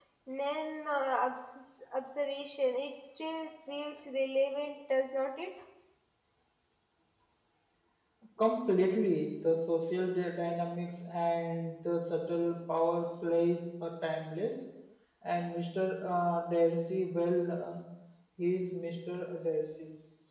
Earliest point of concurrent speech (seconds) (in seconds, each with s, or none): none